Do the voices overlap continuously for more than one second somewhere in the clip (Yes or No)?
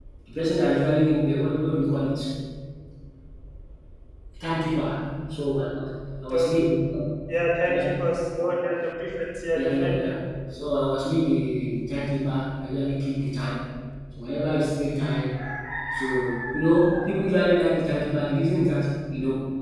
No